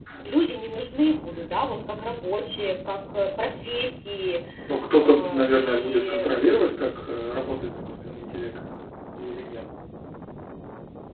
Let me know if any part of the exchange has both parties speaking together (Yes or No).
Yes